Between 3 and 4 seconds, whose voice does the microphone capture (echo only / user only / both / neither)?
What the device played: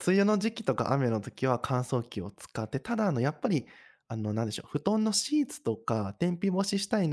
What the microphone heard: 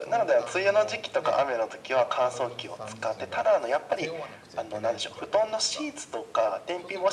both